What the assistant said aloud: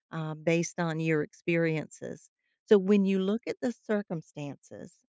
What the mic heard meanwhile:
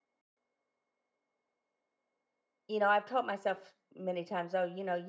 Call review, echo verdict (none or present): none